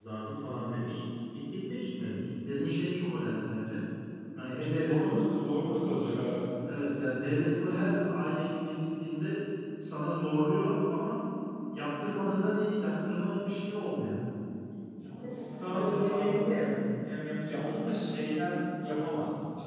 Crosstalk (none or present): present